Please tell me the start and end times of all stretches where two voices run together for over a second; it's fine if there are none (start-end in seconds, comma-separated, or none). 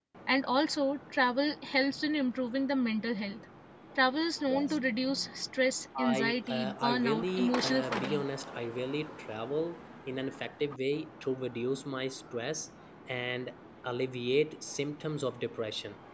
6.0-8.2